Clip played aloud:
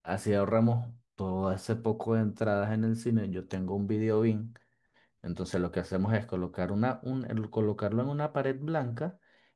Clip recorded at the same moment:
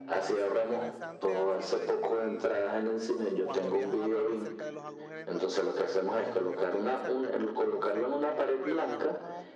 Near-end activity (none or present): present